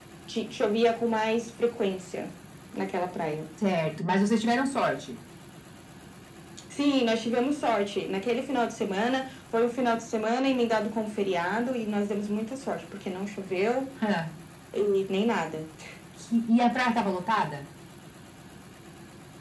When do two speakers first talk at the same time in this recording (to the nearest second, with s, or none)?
none